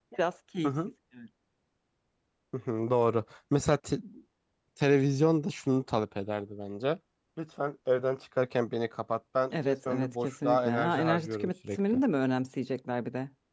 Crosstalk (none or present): present